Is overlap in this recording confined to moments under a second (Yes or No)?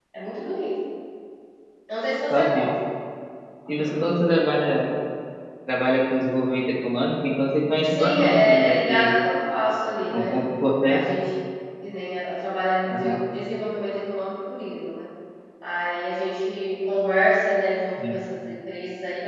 No